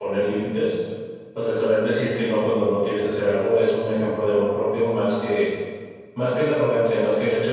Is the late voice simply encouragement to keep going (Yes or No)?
Yes